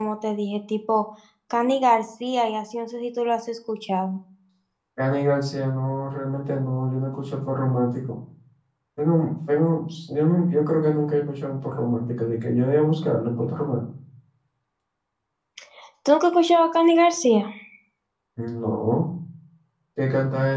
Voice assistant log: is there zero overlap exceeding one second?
Yes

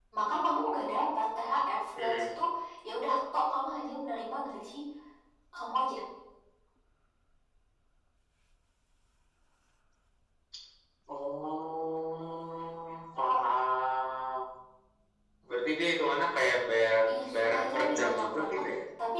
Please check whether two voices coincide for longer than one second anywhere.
Yes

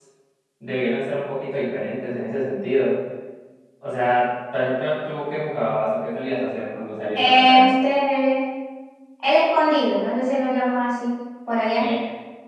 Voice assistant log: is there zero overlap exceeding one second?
Yes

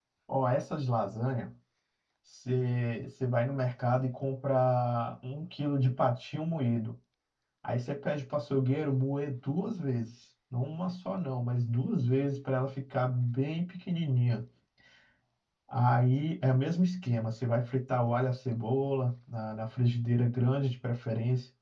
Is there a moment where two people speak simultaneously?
No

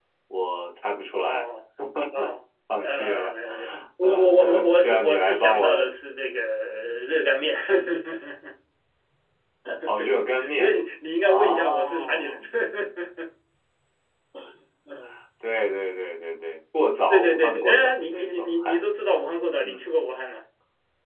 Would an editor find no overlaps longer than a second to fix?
No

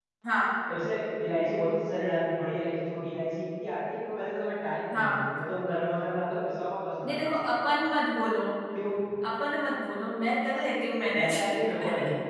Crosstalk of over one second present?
No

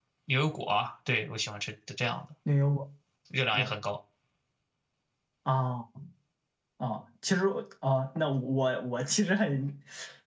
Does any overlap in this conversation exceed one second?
No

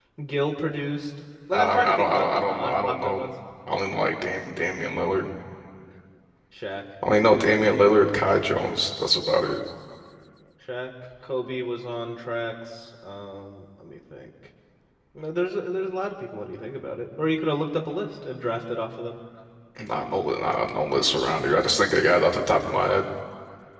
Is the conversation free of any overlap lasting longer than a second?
No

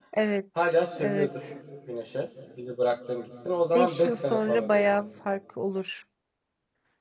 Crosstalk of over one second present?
Yes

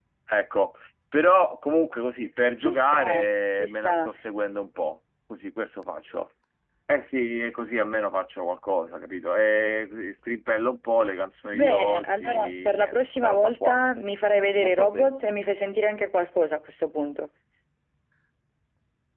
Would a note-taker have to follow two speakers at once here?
Yes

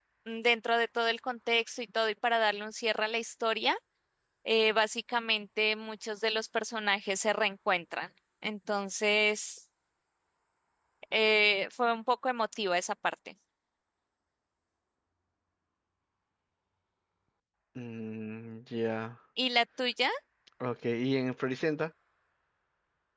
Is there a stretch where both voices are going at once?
No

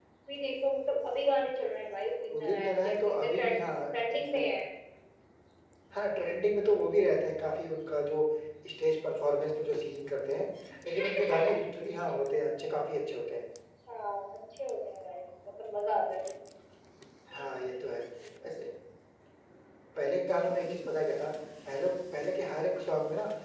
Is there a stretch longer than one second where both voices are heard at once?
Yes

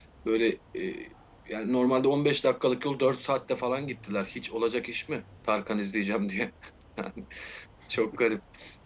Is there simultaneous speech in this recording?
No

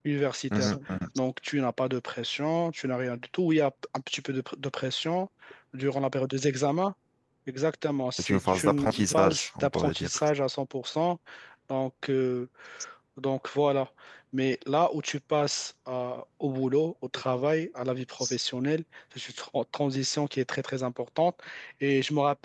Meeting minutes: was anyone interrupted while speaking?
Yes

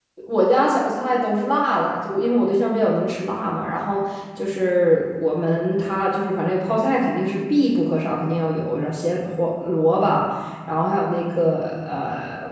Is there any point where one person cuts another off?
No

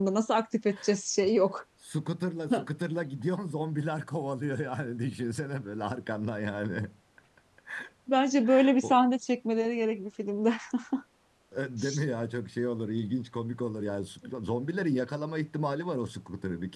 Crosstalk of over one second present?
No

